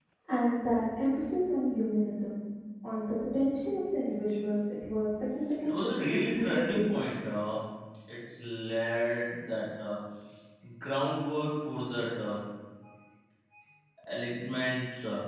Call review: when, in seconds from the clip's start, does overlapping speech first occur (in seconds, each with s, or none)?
5.6 s